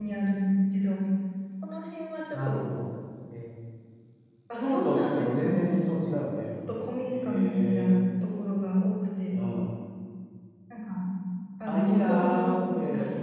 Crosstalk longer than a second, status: present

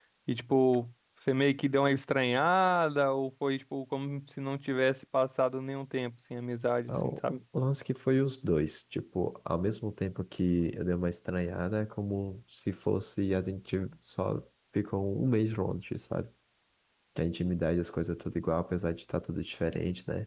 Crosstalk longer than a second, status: none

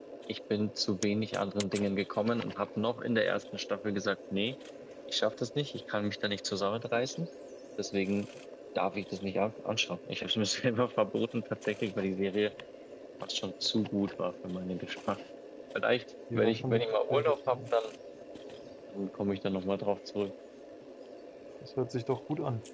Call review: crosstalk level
present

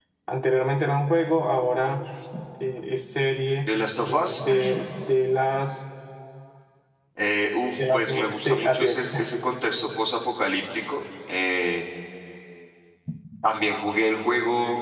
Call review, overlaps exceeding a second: present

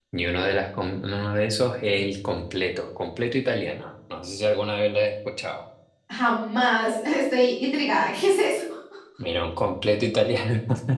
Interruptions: none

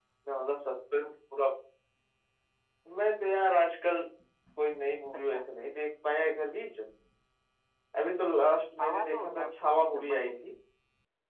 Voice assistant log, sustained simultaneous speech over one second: present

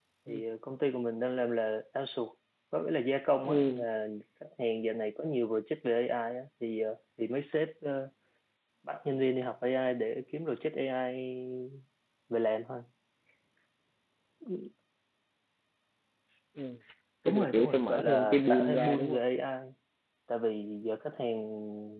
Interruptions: present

